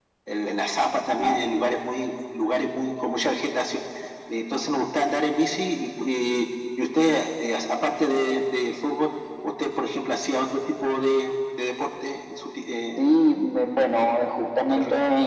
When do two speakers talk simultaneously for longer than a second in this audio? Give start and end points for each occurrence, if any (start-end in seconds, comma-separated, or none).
none